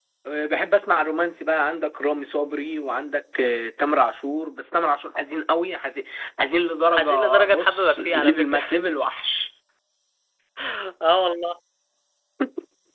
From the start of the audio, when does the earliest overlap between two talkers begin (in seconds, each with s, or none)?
6.9 s